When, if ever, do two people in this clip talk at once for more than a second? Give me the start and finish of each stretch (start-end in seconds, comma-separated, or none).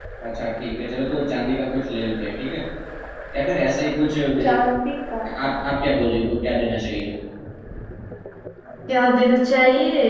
none